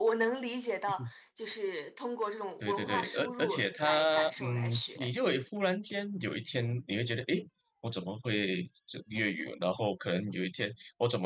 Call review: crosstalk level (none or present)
present